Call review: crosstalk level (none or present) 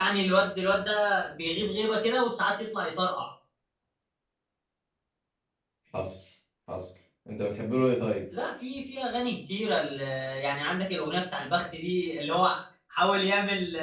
none